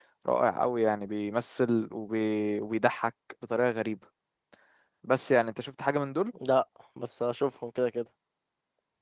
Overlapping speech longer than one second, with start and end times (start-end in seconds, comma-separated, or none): none